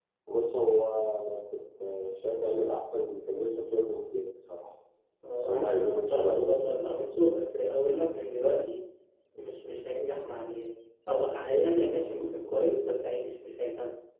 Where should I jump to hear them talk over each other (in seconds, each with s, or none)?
5.3 s